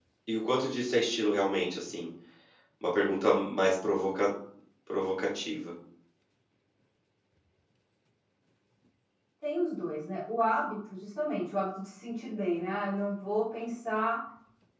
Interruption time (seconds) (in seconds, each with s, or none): none